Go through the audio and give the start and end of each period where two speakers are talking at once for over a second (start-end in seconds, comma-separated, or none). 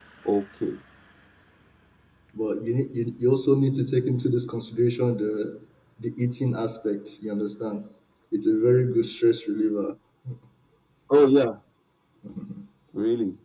none